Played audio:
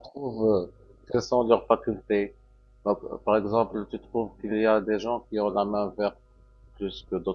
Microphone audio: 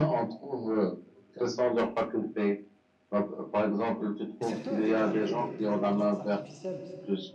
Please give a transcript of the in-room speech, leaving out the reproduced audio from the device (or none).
Et surtout avec l'arrivée de, de l'intelligence artificielle,